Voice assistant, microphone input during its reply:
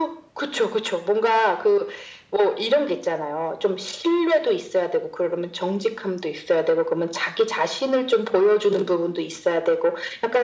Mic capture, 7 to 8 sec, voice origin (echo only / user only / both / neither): echo only